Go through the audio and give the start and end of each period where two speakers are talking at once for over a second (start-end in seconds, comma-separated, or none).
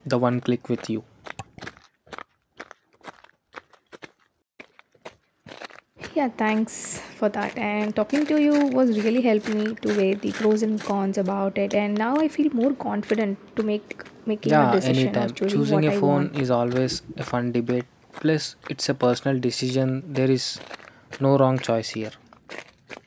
14.4-16.3